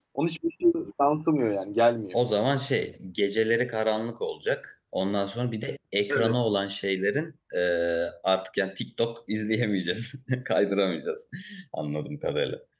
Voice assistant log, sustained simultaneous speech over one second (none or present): none